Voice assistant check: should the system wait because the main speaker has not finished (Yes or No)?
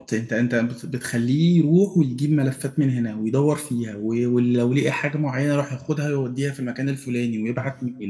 Yes